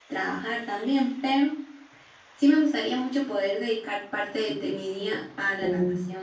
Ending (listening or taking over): listening